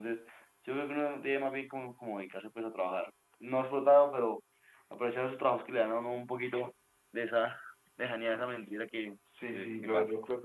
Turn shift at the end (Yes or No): Yes